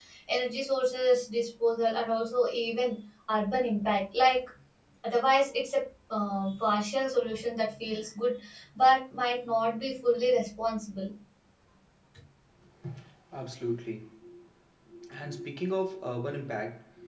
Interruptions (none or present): none